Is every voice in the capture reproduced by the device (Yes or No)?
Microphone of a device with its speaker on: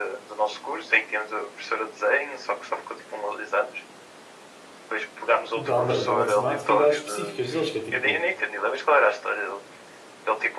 No